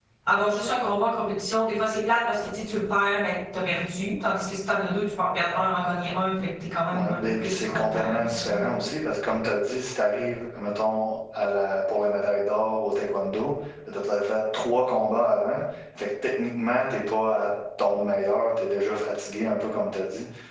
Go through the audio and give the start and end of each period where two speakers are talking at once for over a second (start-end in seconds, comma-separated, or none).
6.9-8.7